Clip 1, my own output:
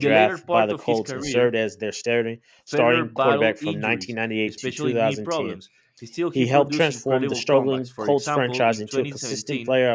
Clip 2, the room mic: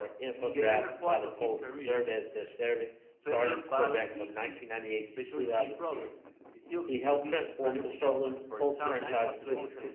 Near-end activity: present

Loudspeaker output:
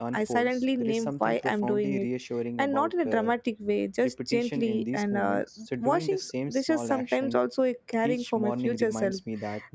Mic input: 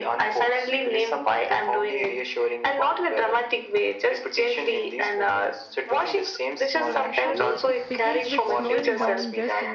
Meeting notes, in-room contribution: present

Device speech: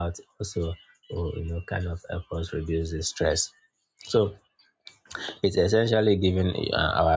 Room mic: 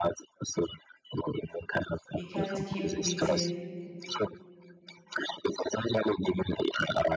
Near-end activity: present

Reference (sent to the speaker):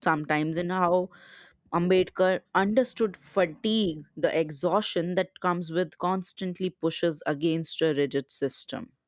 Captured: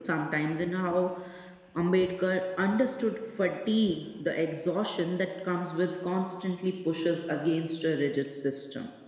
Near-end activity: none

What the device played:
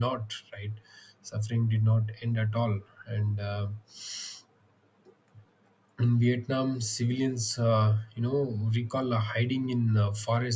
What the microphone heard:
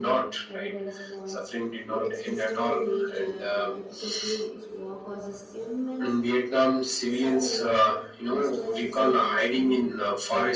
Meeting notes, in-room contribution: present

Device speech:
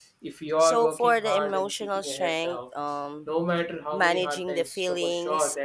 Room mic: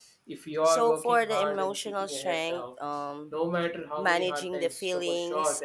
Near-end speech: none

